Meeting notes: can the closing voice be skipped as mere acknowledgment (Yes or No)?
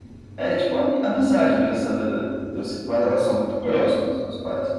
Yes